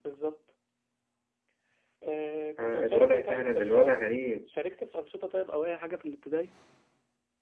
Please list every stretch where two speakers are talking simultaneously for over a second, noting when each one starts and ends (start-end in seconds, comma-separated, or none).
2.6-4.0